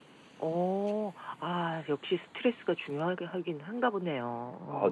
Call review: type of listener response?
taking over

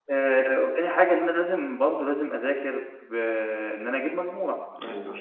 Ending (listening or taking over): listening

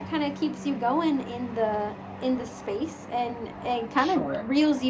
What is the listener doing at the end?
listening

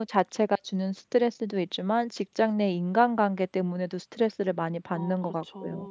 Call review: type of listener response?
taking over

